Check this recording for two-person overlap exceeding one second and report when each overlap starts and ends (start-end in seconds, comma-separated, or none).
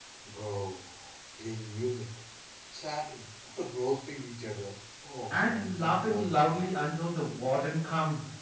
5.3-6.8